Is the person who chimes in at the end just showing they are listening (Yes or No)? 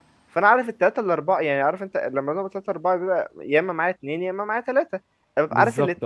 Yes